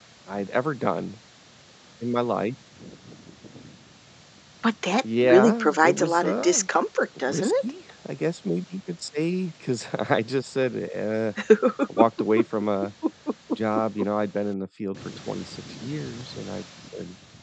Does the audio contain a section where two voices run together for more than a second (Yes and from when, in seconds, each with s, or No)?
Yes, from 5.2 s